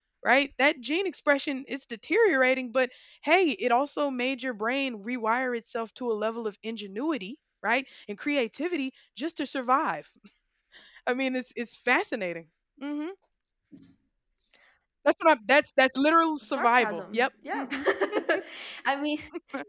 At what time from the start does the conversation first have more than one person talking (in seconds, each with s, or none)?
16.4 s